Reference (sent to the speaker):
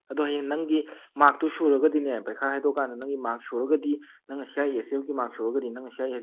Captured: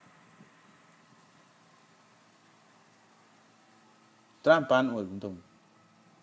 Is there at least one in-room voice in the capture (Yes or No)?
Yes